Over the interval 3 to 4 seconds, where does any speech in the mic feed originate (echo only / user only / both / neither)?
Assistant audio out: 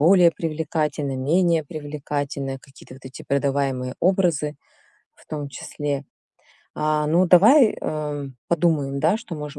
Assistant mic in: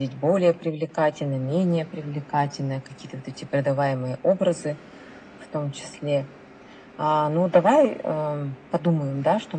echo only